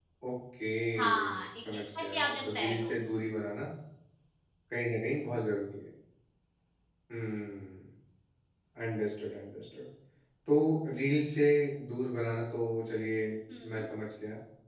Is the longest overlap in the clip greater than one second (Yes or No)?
Yes